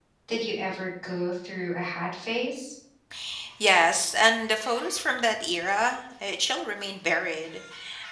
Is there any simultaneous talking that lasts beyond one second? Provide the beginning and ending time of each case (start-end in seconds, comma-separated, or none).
none